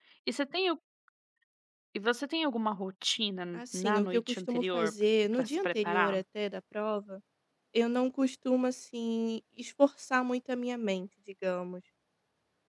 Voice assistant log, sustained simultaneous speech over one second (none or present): present